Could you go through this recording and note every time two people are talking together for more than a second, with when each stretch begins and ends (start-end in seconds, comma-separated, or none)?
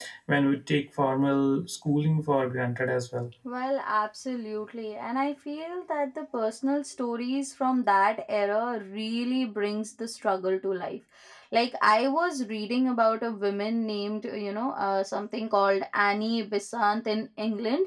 none